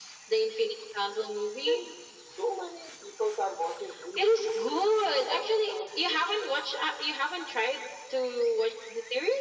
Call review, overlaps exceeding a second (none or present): present